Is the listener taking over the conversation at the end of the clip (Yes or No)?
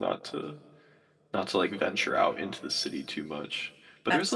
No